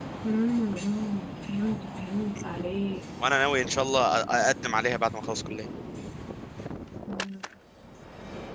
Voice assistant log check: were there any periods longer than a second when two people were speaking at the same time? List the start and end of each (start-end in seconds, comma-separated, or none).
none